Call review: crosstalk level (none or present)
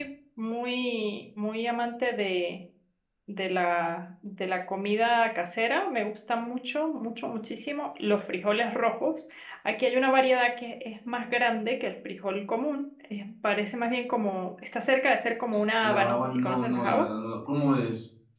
present